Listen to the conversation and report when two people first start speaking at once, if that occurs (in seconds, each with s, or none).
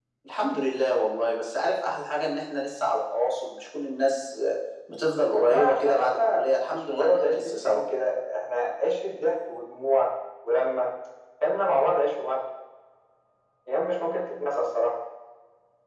5.3 s